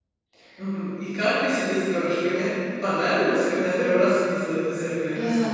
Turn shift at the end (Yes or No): Yes